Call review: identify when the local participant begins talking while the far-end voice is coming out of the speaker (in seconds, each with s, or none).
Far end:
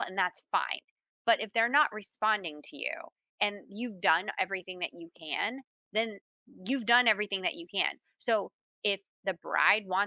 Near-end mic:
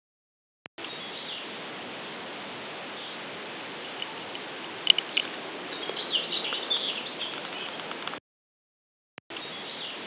none